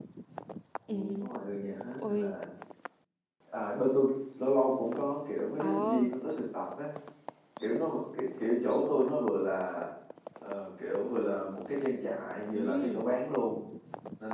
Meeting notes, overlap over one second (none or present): none